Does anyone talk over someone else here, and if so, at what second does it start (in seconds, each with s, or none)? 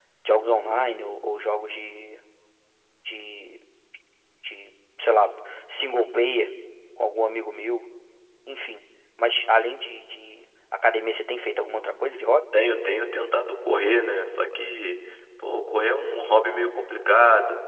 none